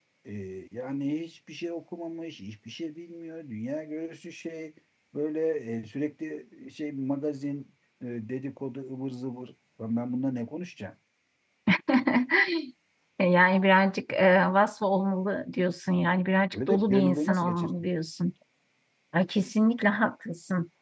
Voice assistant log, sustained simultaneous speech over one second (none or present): present